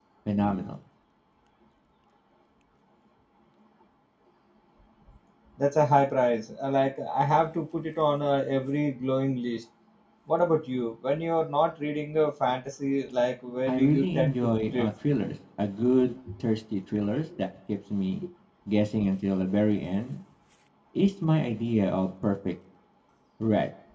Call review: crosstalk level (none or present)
present